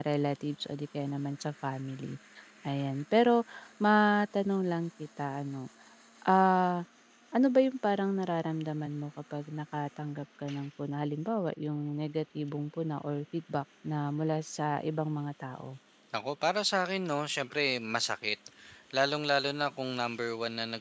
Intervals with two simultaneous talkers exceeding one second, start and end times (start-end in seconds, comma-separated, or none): none